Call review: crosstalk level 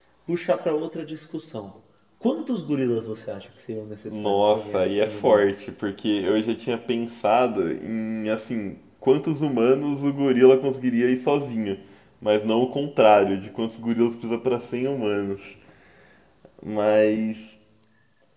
present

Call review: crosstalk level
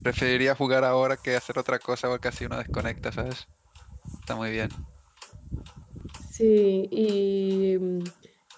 none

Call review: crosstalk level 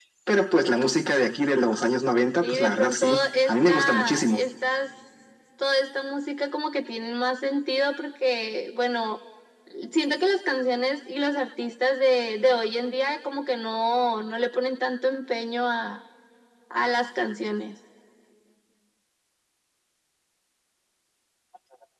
present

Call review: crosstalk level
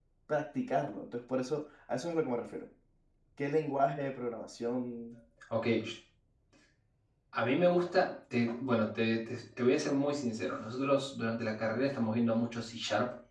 none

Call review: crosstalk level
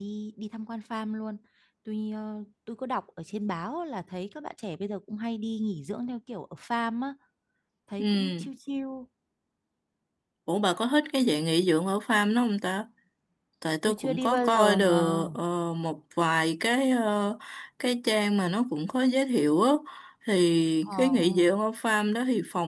present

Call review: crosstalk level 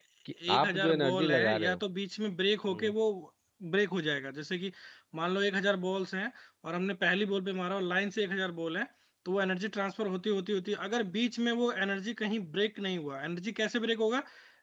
present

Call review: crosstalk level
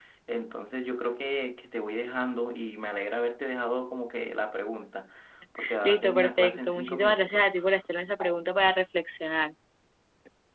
present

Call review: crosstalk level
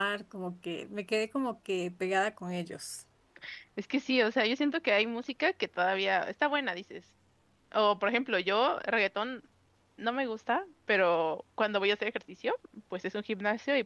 none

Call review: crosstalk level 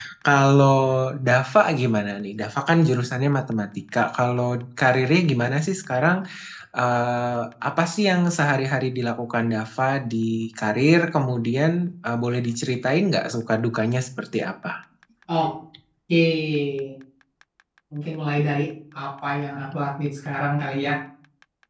none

